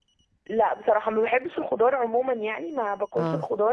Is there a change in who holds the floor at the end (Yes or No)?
No